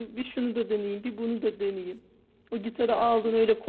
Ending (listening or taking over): listening